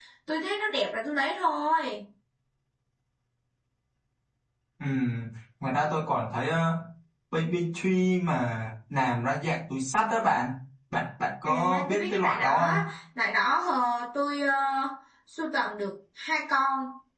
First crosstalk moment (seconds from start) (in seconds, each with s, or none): 11.4 s